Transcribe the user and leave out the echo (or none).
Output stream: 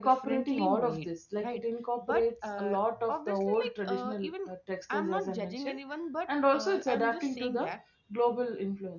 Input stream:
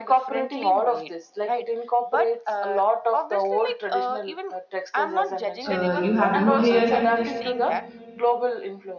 uh, you have no hair